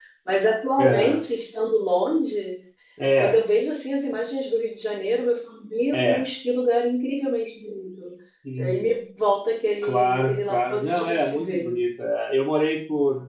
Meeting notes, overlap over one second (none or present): present